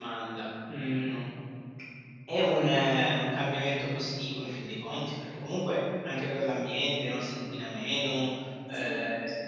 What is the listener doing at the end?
listening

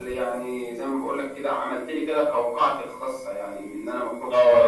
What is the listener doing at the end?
taking over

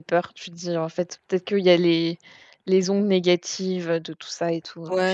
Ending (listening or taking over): taking over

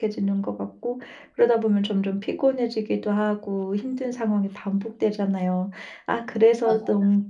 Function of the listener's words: listening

